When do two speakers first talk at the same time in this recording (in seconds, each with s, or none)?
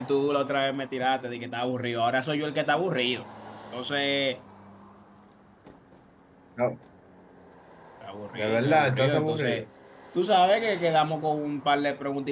8.3 s